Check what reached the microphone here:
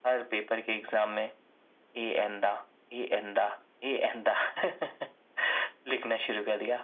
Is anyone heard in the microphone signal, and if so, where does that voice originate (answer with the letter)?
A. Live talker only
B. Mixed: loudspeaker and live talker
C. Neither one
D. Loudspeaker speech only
D